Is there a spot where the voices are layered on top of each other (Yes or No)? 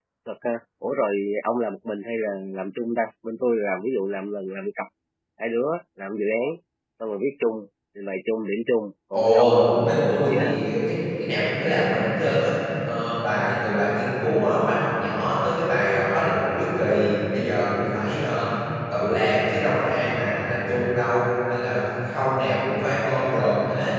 Yes